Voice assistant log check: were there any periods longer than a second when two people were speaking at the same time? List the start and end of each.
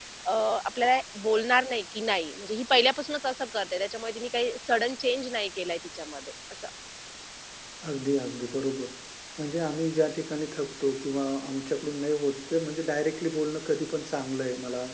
none

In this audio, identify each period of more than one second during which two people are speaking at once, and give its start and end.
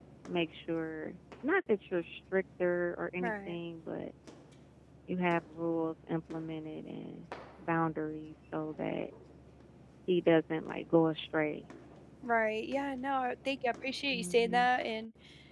none

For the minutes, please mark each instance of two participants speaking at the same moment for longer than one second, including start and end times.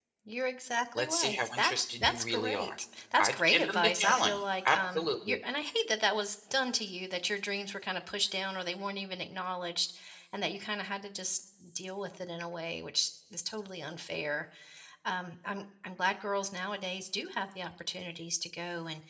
0.9-2.7, 3.2-5.4

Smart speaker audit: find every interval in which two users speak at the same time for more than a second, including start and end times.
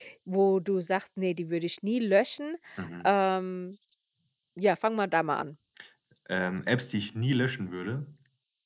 none

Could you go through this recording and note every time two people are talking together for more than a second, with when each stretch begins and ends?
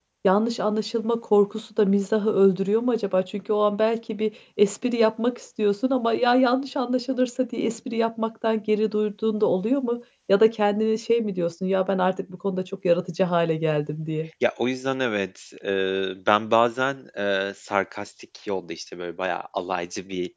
none

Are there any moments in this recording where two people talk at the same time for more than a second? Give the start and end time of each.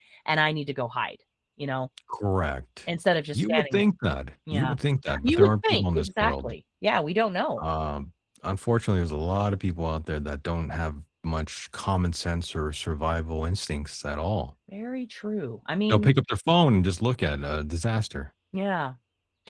5.2-6.5

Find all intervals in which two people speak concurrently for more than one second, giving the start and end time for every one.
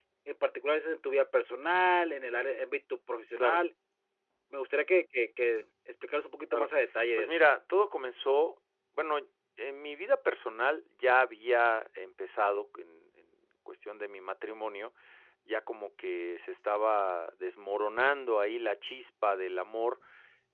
none

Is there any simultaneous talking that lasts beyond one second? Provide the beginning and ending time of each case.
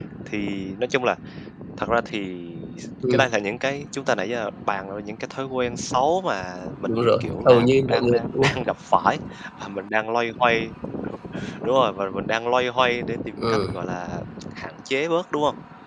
6.8-8.6

